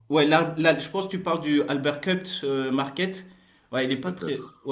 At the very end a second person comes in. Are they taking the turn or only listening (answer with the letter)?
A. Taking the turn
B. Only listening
B